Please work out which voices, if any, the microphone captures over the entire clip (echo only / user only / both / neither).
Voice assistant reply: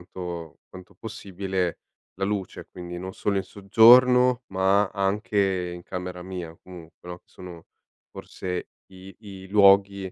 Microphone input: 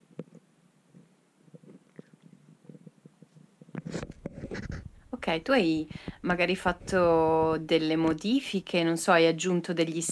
user only